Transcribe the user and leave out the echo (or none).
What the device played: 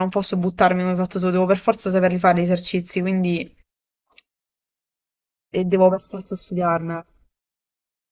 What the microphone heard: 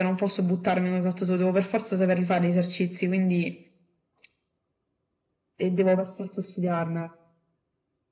none